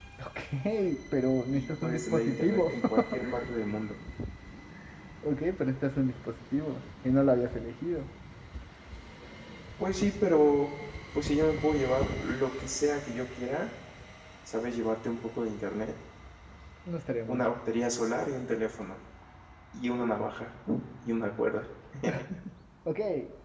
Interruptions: present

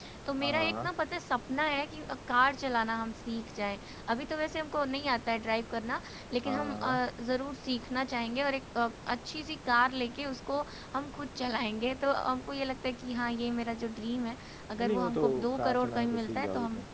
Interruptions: present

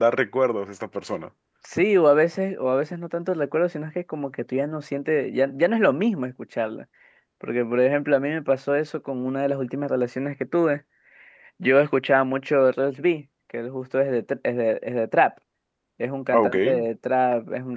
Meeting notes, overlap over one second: none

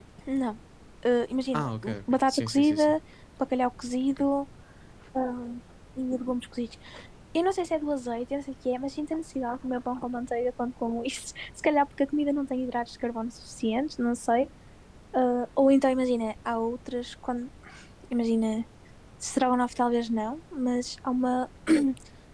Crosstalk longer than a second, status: present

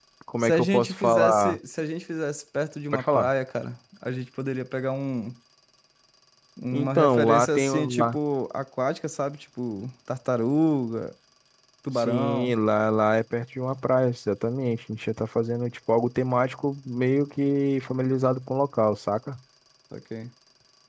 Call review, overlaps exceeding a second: present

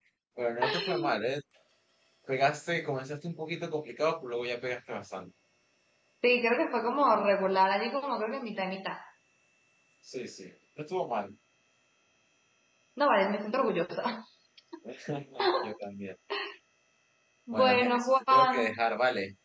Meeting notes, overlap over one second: present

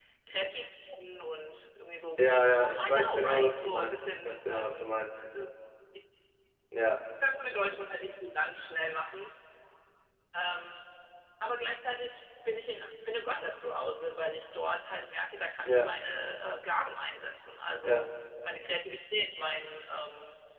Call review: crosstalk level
present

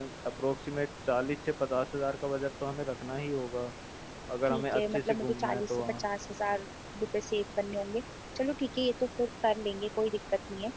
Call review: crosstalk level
present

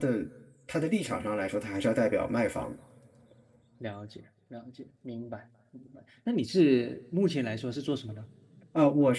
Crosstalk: none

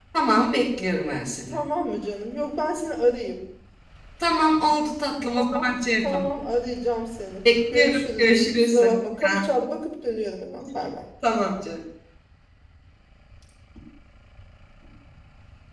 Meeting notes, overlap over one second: present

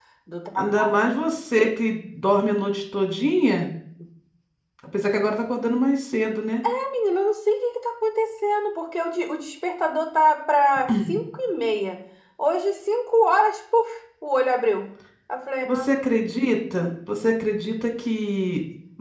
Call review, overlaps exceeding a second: none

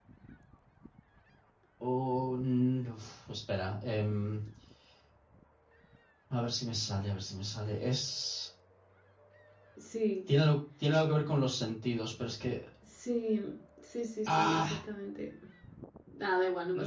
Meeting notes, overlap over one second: none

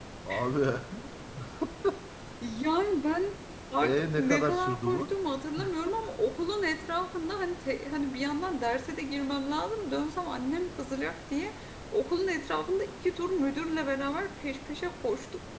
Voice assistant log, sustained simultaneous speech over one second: present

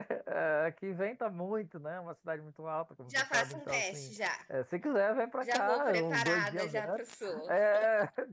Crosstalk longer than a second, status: present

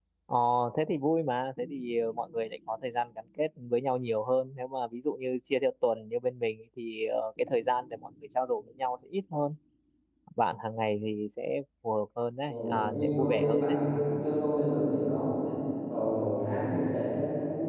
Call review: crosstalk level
present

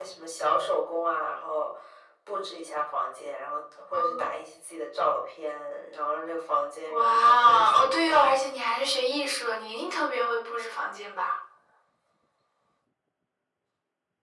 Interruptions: present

